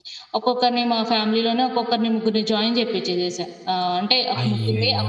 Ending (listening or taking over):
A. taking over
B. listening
B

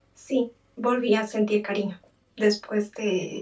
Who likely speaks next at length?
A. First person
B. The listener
A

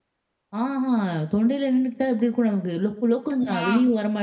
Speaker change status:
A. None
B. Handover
A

